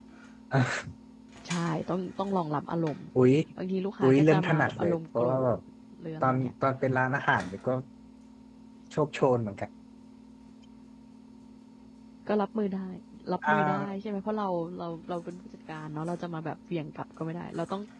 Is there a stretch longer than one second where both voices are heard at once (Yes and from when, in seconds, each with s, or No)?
Yes, from 4.0 s